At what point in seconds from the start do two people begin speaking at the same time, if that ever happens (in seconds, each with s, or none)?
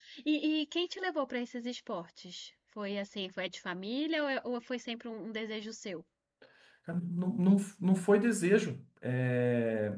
none